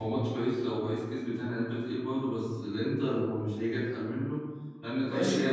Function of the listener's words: taking over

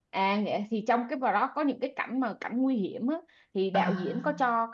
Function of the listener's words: listening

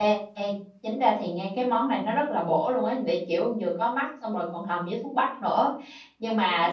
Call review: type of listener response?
listening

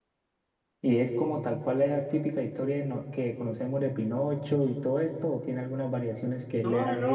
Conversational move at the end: taking over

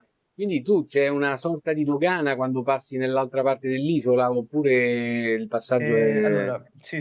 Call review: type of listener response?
taking over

